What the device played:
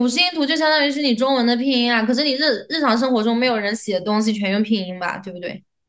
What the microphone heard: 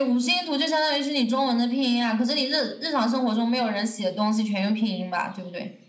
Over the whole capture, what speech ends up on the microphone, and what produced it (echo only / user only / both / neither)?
echo only